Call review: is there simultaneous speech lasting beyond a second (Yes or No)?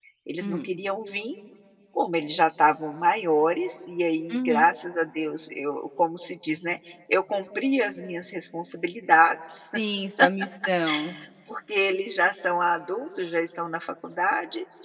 No